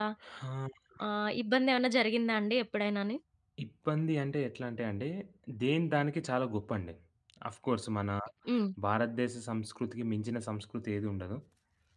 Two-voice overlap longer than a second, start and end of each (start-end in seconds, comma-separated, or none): none